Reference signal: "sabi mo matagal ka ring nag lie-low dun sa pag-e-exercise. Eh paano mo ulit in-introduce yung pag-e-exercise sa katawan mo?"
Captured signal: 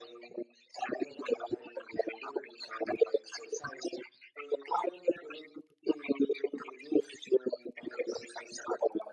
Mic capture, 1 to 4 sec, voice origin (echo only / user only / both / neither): echo only